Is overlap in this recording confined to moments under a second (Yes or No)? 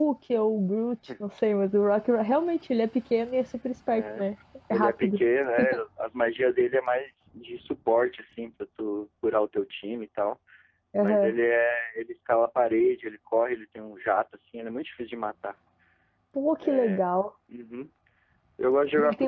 Yes